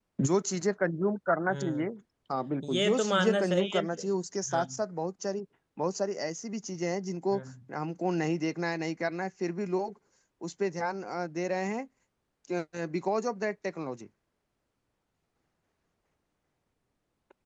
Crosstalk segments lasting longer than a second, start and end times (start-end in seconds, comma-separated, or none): 2.7-4.1